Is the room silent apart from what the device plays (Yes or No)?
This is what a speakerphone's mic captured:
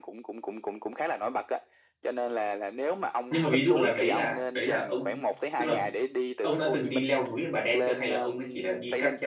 No